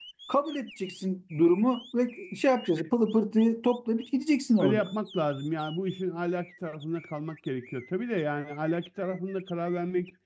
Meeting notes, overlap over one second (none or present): none